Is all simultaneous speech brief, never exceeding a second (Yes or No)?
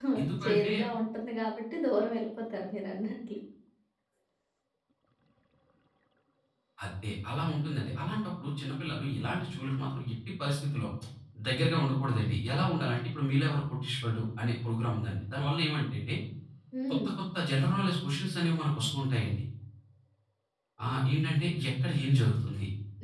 Yes